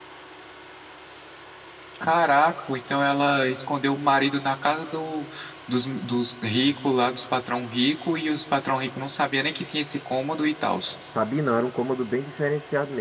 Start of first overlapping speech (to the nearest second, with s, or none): none